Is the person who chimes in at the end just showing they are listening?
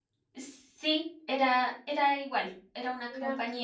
Yes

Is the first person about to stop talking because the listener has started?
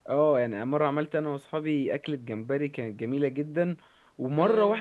No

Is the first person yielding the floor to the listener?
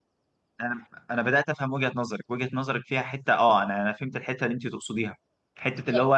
No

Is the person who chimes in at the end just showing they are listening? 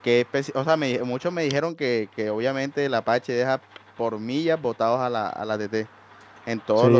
No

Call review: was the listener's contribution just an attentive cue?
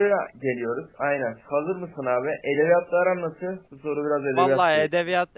No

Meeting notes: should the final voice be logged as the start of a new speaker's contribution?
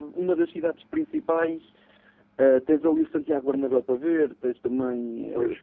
Yes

